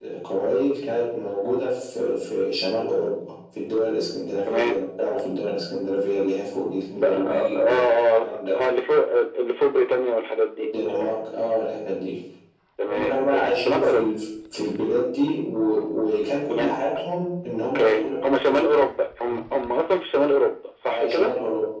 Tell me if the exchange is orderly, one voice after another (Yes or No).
No